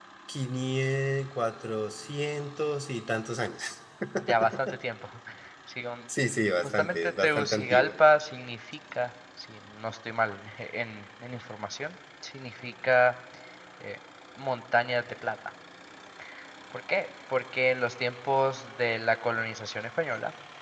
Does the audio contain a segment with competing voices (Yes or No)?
Yes